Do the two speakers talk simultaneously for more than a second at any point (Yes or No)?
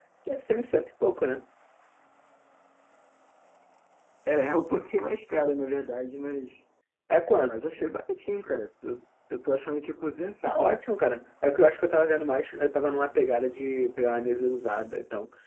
No